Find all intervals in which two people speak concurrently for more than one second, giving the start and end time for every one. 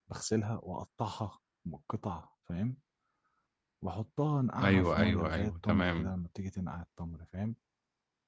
4.6-6.1

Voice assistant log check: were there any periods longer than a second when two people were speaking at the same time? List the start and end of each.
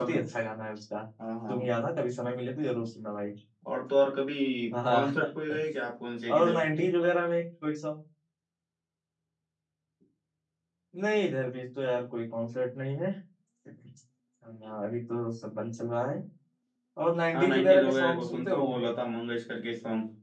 17.3-18.9

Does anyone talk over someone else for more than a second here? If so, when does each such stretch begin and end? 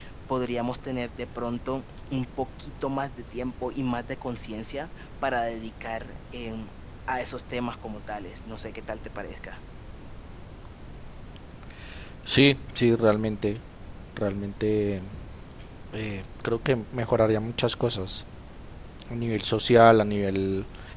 none

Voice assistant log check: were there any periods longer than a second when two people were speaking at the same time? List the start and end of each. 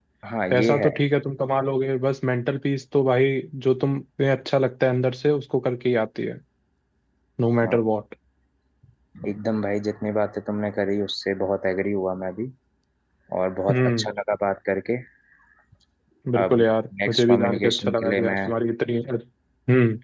17.1-18.4

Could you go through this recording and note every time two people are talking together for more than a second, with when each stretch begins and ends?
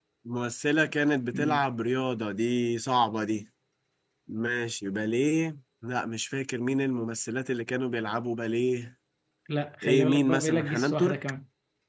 9.8-11.2

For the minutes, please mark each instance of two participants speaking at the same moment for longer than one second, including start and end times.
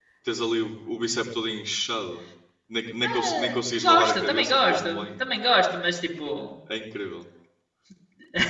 3.0-5.2

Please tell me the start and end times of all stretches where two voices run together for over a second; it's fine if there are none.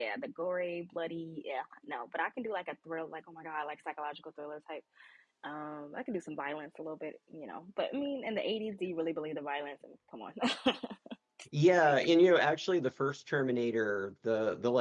none

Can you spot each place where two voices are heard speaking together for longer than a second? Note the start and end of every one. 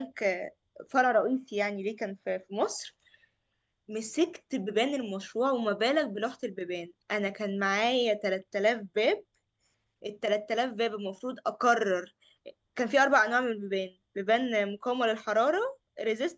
none

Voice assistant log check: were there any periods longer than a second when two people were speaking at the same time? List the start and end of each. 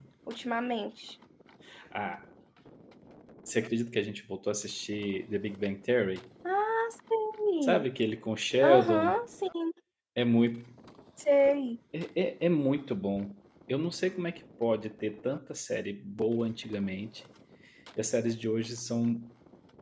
none

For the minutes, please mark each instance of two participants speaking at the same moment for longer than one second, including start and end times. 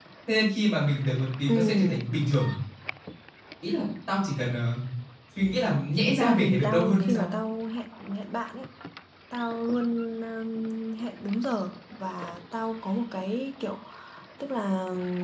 6.0-7.3

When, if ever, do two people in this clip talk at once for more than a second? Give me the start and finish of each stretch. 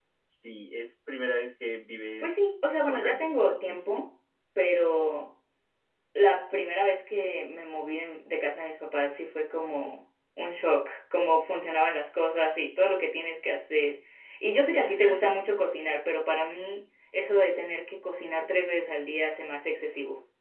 2.2-4.0

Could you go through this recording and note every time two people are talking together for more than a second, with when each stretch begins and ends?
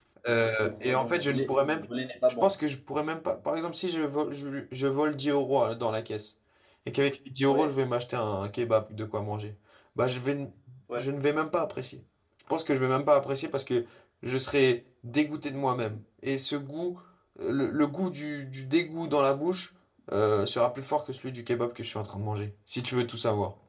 0.6-1.8

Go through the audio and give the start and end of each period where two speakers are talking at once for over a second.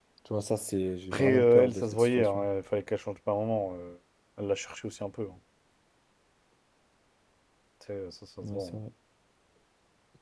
1.1-2.4

